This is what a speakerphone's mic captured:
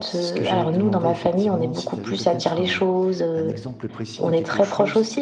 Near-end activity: present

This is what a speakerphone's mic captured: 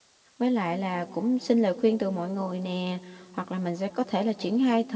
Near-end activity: present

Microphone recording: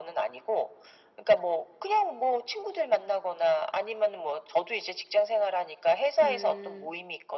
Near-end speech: present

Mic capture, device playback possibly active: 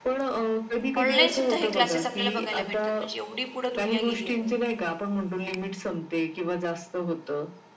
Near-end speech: present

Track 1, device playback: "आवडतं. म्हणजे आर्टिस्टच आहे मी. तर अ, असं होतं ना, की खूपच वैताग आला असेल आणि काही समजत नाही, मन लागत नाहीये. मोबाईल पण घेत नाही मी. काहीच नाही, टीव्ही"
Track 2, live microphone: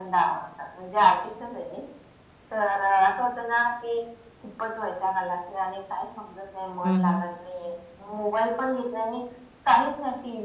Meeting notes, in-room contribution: present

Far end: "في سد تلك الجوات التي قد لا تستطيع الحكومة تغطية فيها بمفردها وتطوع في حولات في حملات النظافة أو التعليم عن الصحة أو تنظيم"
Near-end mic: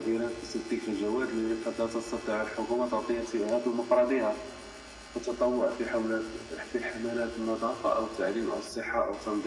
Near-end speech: none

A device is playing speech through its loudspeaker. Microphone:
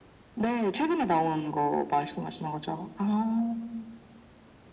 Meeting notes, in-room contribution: none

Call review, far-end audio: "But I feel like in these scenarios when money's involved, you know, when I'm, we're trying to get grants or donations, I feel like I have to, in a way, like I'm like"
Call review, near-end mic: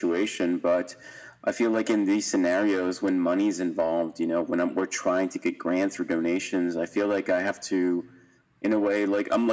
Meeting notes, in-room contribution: none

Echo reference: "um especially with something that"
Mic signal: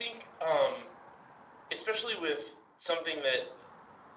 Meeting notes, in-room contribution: none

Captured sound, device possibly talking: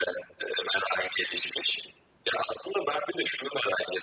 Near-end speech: none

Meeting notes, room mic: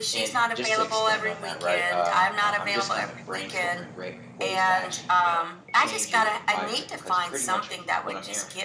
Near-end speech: present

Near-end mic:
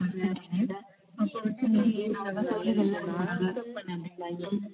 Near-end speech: present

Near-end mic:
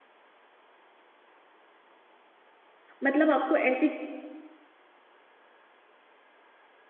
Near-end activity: present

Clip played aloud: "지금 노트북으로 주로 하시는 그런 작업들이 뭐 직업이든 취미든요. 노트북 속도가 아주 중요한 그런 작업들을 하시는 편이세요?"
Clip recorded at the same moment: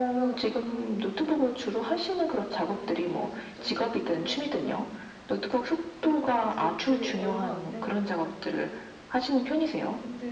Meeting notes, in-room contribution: present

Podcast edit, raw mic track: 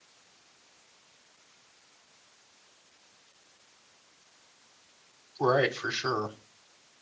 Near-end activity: present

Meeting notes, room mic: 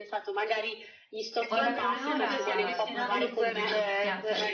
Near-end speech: present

